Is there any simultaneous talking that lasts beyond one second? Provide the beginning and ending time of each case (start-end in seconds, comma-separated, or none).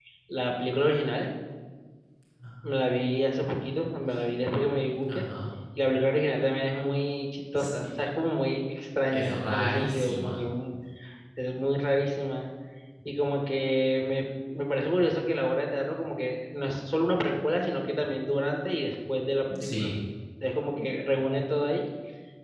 9.1-10.4